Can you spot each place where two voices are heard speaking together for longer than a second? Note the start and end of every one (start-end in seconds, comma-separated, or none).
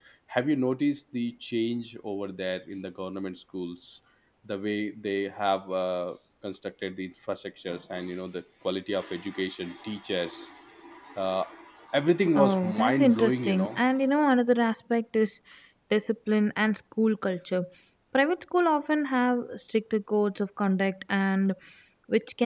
12.3-13.7